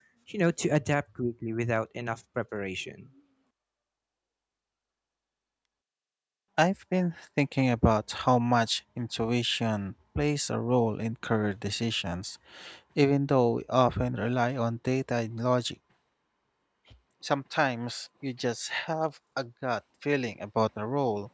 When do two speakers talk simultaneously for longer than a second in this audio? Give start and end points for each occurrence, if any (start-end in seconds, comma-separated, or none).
none